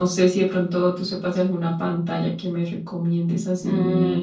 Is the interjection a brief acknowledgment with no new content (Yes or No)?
No